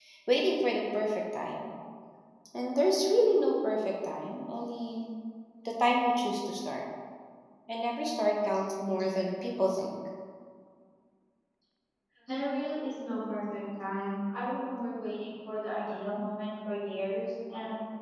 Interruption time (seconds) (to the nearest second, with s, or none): none